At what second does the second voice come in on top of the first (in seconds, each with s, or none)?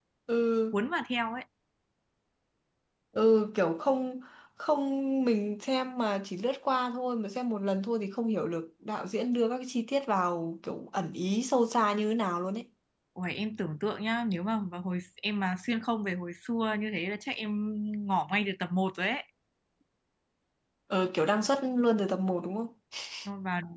none